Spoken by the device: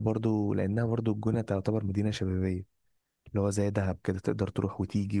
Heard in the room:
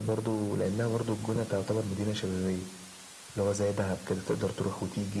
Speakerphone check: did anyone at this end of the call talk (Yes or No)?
No